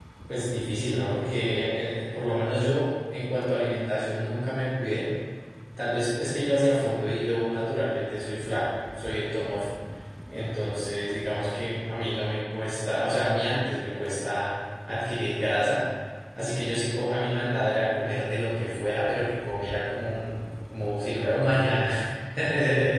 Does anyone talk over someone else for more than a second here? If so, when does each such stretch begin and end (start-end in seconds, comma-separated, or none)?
none